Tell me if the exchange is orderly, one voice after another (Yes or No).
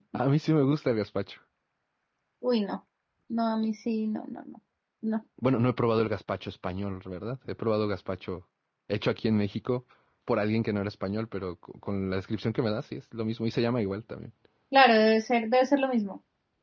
Yes